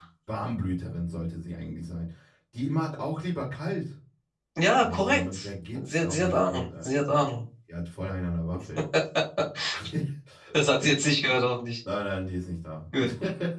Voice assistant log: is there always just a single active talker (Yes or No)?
No